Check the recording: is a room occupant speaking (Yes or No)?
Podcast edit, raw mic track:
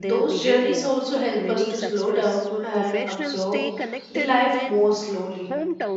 Yes